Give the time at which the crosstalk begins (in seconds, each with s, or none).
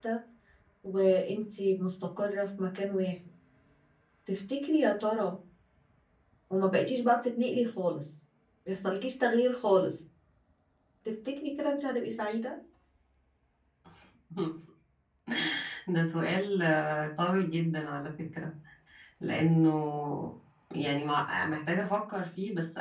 none